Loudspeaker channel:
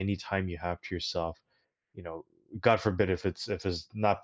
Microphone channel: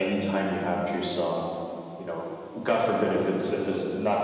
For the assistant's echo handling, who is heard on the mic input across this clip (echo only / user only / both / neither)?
echo only